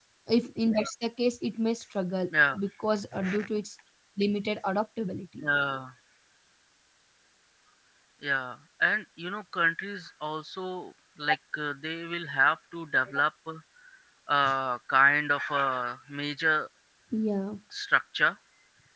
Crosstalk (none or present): none